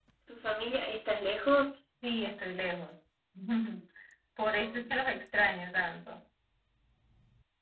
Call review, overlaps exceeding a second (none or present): none